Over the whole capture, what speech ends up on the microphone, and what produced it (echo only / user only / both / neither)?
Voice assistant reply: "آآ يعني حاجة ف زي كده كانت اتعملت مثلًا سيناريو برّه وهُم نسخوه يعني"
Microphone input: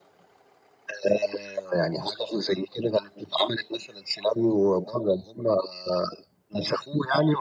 echo only